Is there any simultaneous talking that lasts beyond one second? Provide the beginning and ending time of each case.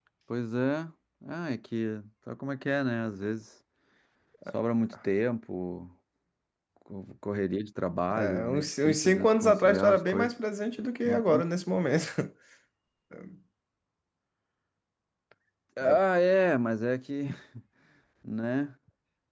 8.1-10.4

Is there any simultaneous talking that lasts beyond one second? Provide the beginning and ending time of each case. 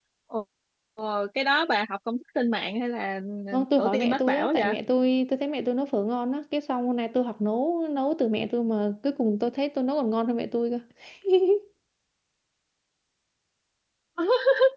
3.5-4.7

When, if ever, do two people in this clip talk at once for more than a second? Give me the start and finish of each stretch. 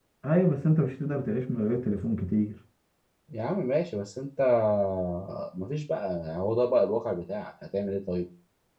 none

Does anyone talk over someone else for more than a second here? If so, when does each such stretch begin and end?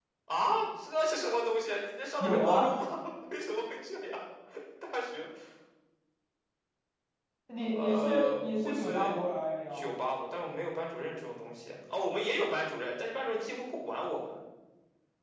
7.7-9.1

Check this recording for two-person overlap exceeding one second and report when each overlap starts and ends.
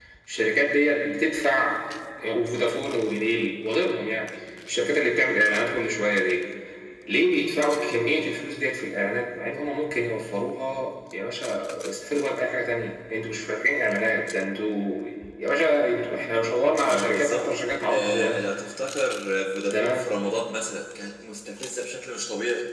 16.8-18.5

